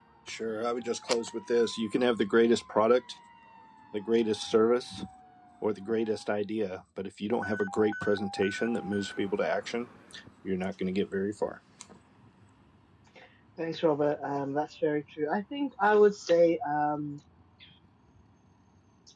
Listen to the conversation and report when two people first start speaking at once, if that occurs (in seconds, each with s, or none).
none